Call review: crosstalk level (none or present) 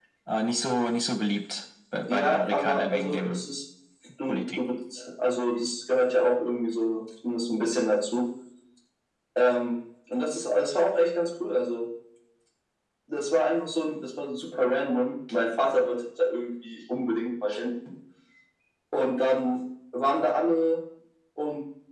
present